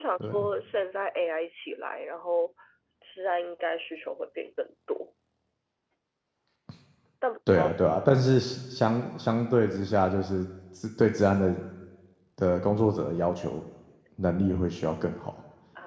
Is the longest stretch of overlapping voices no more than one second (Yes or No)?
Yes